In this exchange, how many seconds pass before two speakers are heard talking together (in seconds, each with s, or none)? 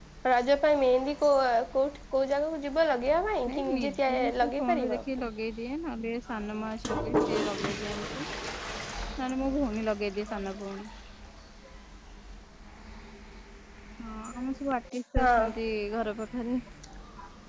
3.5 s